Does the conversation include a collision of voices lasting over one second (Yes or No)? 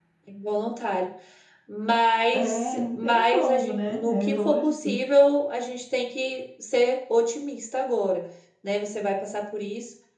Yes